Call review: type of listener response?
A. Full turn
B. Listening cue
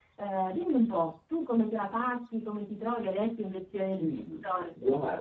A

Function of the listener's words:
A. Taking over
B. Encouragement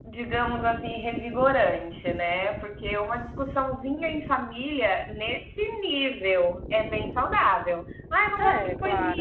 B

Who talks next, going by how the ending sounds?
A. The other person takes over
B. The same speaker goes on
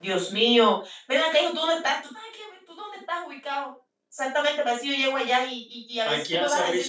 A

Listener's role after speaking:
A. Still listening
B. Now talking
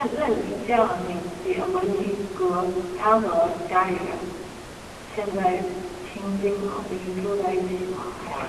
B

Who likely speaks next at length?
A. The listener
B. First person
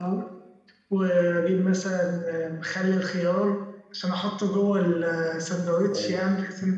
A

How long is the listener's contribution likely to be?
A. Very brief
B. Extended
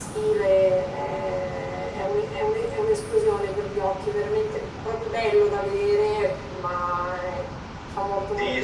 B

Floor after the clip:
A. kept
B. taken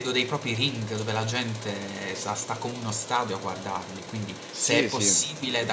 A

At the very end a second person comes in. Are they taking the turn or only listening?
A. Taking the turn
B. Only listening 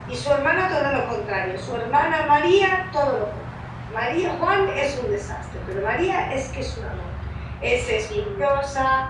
B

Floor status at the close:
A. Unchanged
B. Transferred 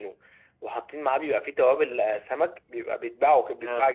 A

